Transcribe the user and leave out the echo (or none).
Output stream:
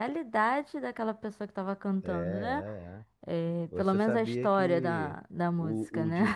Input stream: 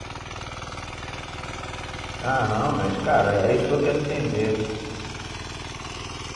Ah, não, mas, cara, é isso que eu quero entender.